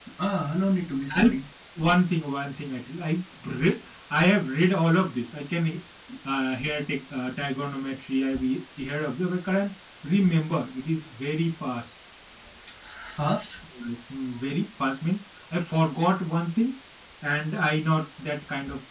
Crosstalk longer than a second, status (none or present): none